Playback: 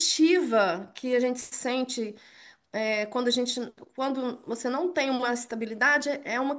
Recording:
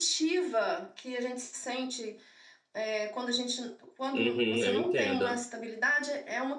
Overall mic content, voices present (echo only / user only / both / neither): both